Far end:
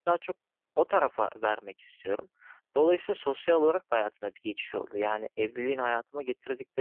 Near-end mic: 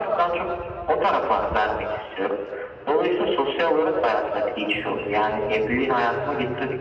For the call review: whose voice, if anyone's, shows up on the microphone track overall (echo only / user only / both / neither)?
echo only